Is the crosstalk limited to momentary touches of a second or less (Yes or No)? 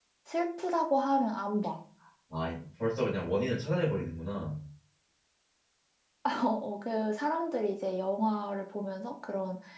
Yes